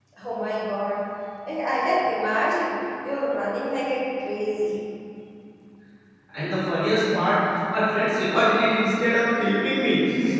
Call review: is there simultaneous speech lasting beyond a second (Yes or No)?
No